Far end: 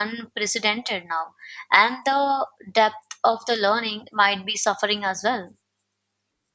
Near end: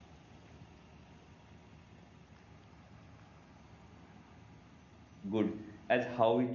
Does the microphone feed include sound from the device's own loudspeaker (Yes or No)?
No